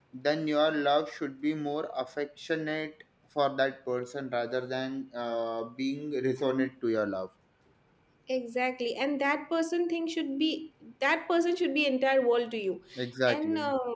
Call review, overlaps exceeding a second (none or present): none